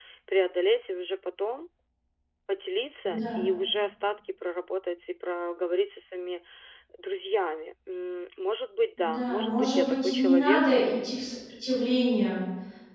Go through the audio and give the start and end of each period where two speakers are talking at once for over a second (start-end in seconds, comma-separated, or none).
9.0-10.7